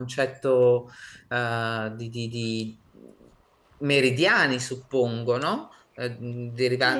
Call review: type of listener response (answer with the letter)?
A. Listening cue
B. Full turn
B